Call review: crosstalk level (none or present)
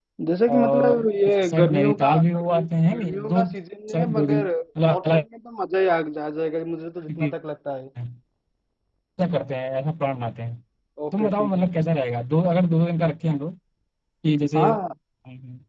present